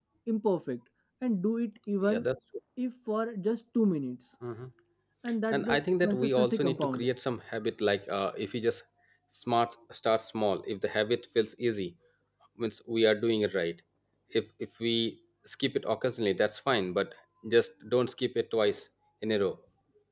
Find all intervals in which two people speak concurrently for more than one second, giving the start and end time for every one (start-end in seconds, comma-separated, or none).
5.5-7.1